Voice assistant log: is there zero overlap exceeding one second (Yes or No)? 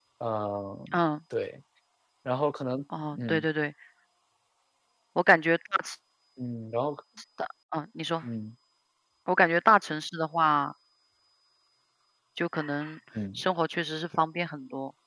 Yes